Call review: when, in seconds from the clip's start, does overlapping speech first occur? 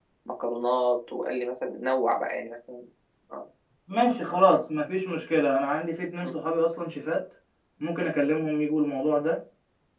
none

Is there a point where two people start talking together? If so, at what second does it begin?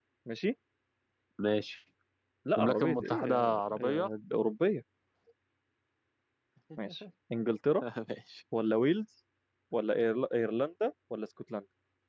2.6 s

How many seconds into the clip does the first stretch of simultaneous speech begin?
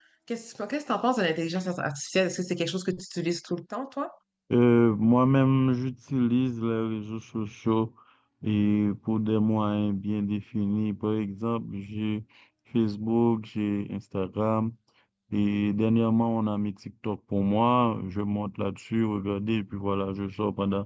none

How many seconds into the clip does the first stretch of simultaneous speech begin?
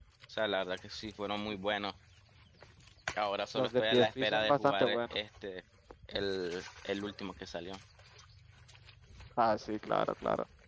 3.5 s

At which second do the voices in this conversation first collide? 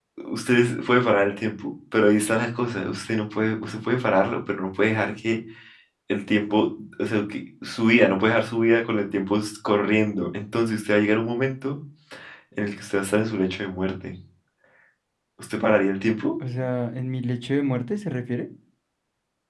none

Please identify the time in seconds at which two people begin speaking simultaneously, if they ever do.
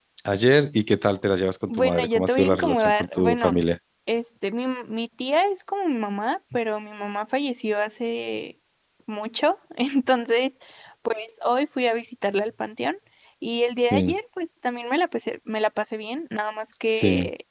1.7 s

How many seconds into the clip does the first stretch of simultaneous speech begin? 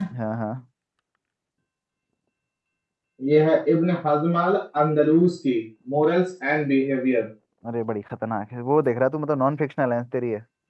none

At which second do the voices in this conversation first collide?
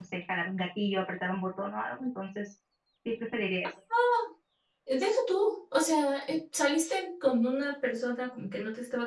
none

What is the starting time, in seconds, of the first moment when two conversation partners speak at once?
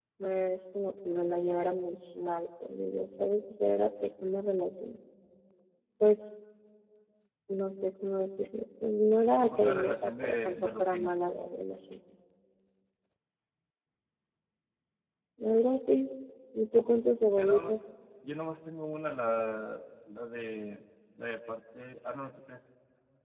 9.4 s

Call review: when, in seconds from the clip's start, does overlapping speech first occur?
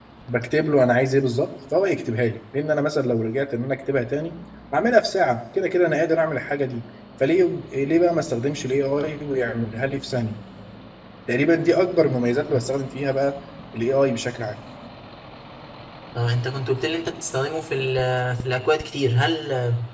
none

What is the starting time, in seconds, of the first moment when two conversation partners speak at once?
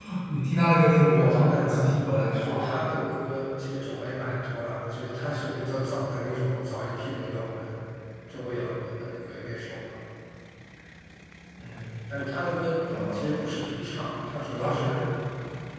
1.0 s

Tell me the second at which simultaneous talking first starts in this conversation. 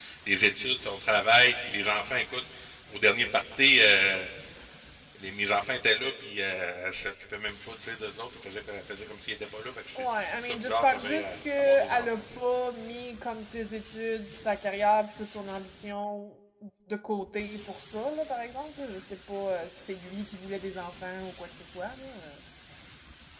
10.0 s

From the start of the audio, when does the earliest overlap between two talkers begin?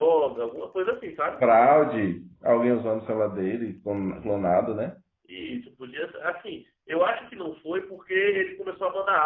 none

